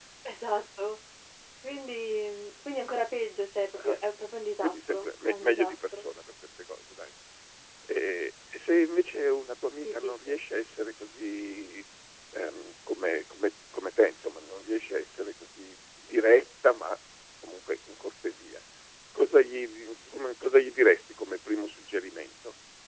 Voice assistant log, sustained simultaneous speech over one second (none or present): present